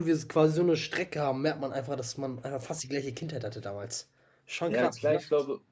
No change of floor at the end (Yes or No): No